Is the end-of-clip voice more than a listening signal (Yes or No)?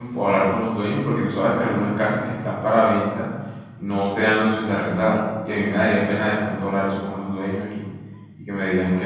Yes